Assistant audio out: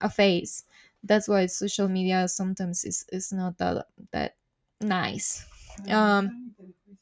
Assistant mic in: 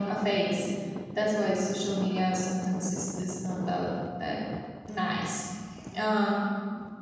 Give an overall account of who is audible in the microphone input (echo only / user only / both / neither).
echo only